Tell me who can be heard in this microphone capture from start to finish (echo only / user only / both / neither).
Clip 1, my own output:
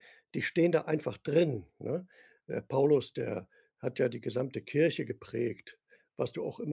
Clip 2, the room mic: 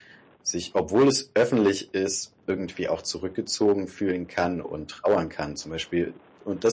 user only